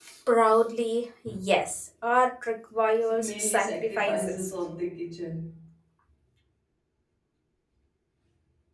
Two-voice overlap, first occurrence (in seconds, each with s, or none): 3.0 s